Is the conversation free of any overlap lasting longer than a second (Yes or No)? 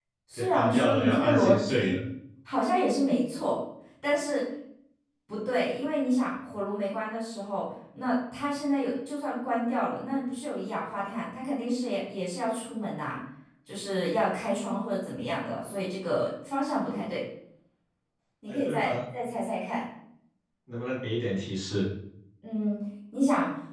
No